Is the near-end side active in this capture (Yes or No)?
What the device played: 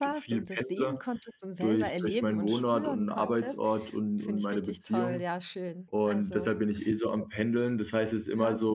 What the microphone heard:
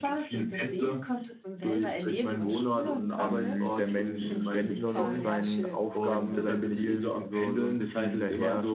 Yes